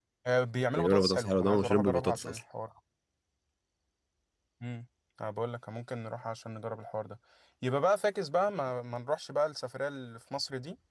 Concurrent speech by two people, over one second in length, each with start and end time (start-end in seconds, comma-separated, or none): 0.8-2.4